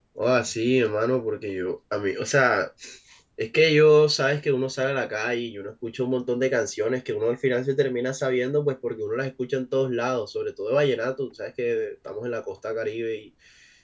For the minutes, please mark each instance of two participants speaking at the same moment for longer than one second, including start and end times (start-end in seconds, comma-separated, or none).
none